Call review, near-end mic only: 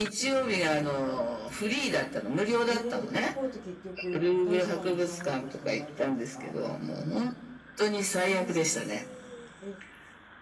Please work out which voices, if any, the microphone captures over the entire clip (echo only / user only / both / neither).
both